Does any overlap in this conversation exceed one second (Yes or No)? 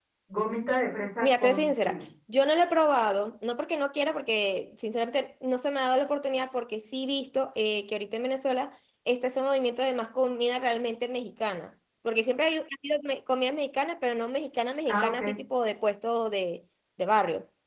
Yes